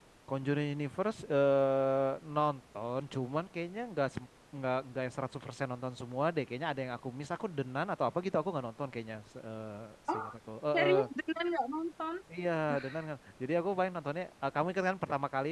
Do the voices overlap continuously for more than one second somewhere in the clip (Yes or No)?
No